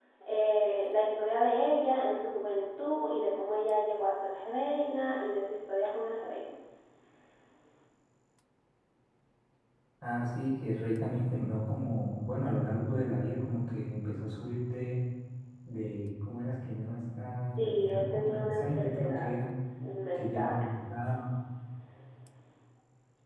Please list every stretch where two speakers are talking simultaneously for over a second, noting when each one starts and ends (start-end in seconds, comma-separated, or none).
17.6-19.3